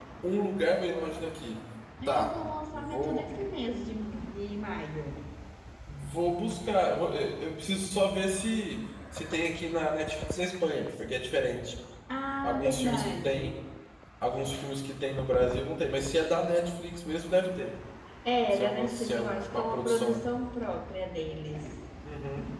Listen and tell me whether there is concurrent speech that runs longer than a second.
Yes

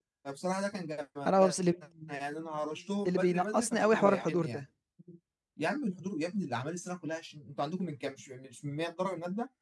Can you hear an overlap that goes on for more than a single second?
Yes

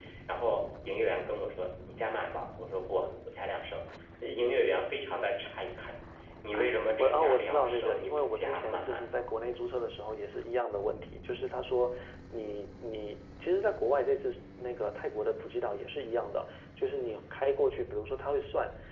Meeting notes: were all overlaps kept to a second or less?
No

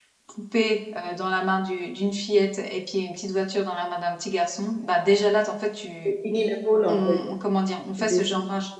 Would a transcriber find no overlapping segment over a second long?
Yes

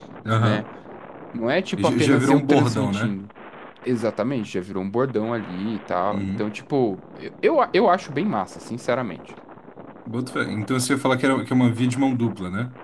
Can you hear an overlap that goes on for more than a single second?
Yes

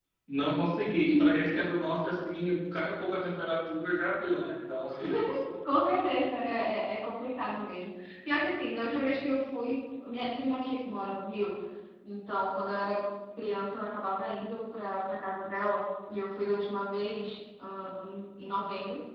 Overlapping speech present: No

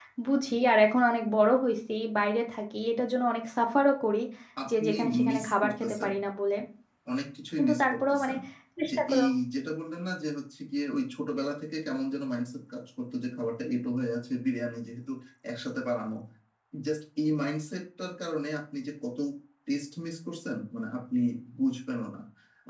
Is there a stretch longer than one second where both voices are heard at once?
Yes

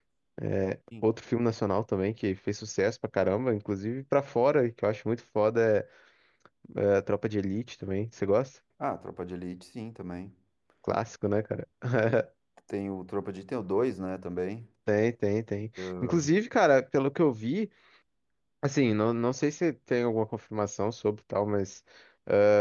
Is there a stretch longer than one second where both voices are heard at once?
No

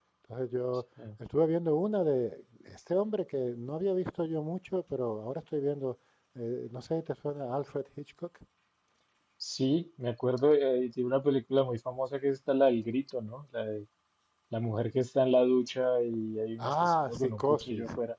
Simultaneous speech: Yes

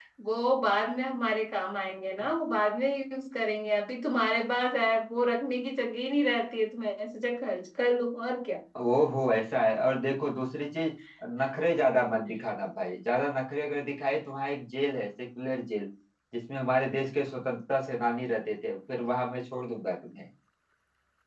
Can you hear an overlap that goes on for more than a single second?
No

